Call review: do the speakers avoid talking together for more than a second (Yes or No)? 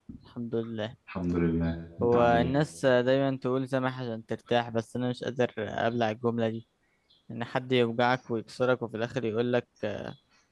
Yes